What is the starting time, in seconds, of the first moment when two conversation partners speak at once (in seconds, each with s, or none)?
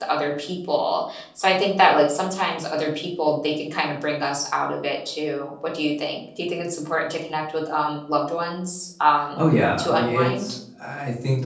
9.3 s